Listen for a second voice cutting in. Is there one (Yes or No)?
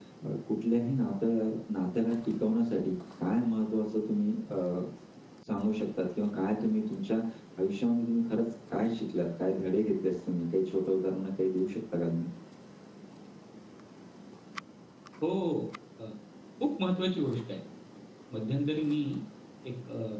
No